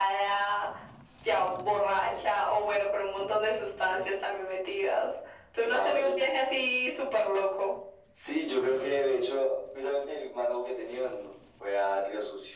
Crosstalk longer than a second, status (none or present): none